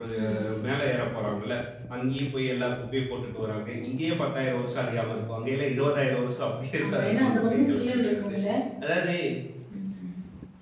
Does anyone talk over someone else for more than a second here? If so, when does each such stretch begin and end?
6.8-8.3

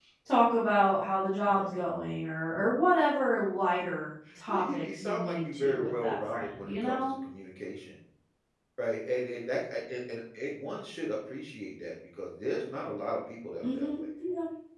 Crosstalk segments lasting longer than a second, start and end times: 4.5-7.0

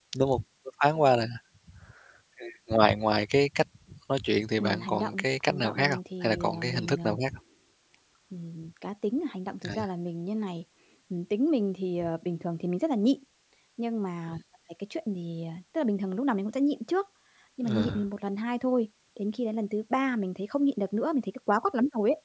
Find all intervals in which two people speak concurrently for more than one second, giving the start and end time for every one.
4.6-7.2

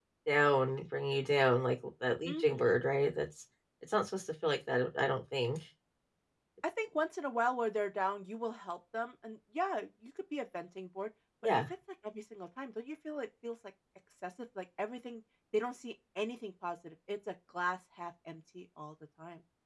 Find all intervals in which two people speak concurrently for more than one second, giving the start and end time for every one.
none

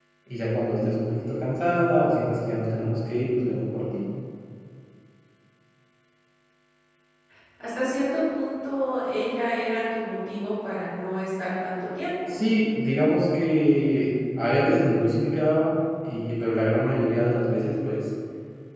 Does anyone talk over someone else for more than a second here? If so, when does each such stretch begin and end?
none

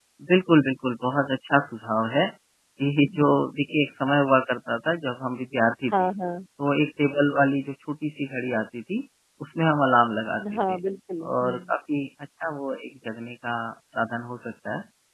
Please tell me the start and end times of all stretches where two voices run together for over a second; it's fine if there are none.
none

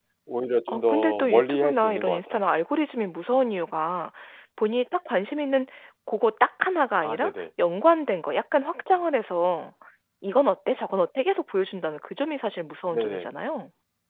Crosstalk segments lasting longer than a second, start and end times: 0.7-2.4

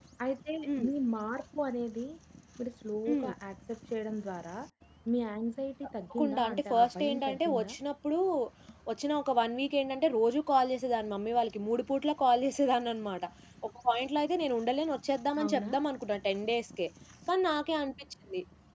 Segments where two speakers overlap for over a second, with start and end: 6.1-7.7

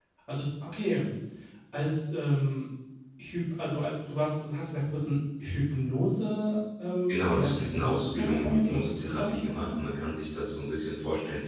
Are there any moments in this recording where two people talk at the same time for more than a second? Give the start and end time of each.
7.1-9.7

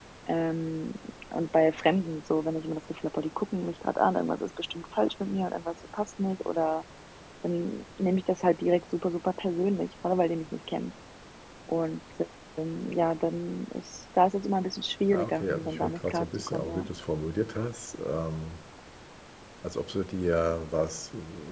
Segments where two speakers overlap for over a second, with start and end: 15.1-16.9

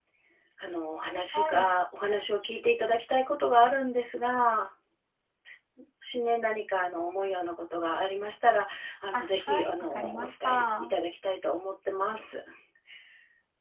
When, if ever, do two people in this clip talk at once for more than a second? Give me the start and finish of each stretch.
9.1-11.0

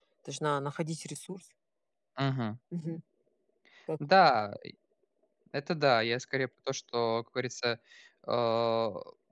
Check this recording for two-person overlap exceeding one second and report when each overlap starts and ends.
none

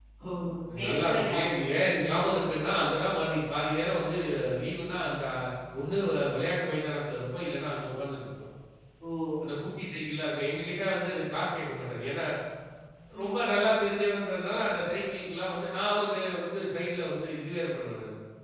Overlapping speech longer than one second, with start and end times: 0.9-2.5

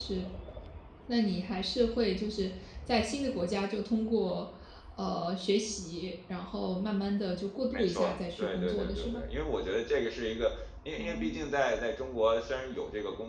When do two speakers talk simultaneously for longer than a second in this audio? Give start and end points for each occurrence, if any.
7.7-9.2

